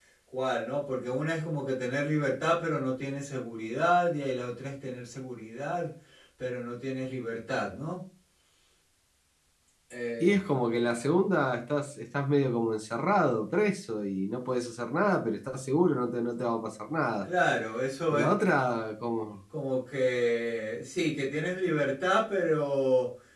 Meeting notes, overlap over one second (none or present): none